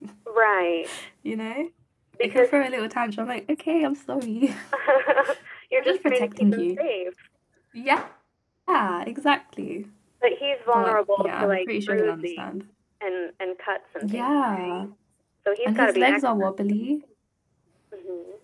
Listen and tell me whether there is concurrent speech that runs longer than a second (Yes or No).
Yes